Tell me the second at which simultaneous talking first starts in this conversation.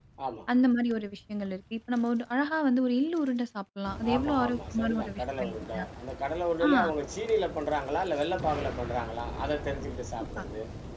4.1 s

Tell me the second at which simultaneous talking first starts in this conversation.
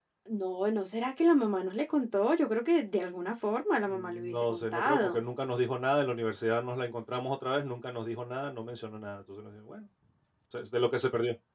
3.9 s

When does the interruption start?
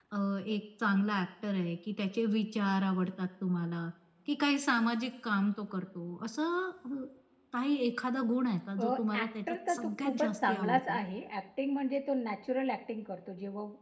8.8 s

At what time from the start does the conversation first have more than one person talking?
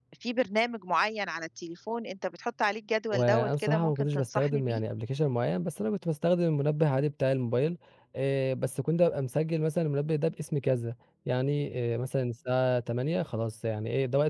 3.1 s

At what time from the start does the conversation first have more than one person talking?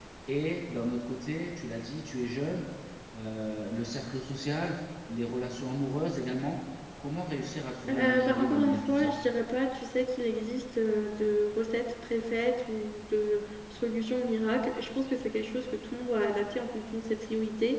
7.9 s

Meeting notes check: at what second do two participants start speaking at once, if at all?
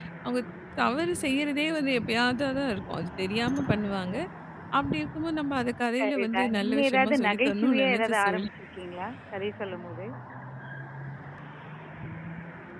6.0 s

